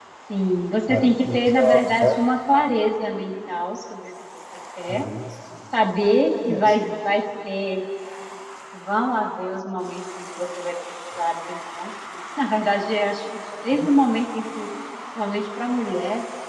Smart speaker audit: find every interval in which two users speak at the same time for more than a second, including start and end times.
0.9-2.2

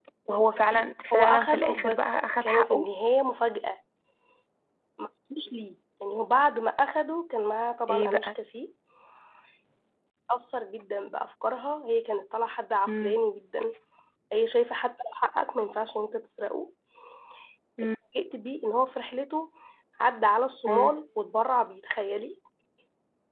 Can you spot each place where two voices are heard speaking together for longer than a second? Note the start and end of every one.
1.1-2.9

